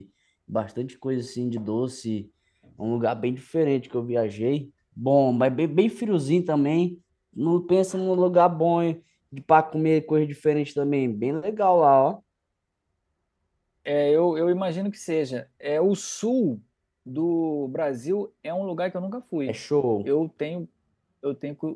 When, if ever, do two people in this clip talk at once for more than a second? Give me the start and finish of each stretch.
none

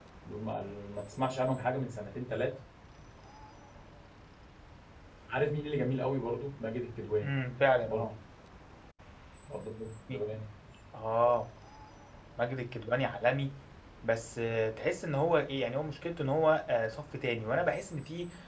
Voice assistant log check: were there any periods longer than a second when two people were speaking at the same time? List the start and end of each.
none

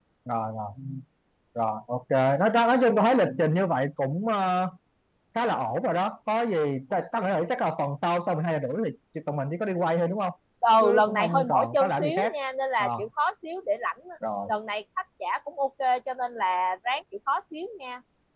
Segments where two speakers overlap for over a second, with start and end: 10.8-12.3

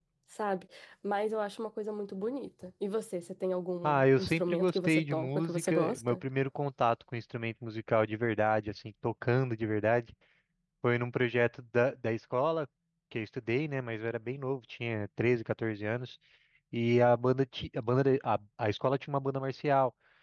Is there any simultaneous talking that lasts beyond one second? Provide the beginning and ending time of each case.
3.8-6.2

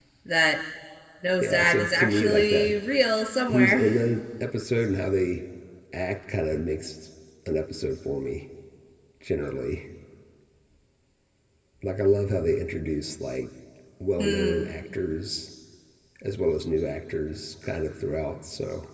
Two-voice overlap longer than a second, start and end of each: 1.4-2.7

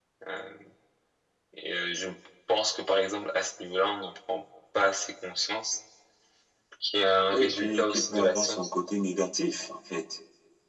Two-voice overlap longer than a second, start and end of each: 7.3-8.7

